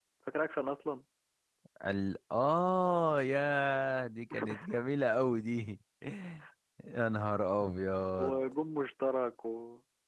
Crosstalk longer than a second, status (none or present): none